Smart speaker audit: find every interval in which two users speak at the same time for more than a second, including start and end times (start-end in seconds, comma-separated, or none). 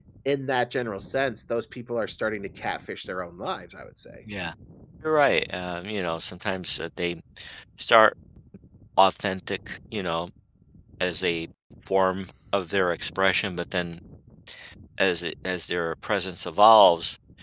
none